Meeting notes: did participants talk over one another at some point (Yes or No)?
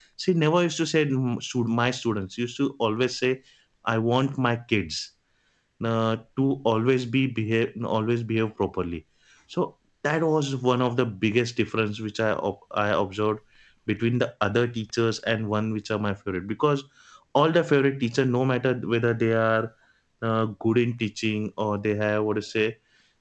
No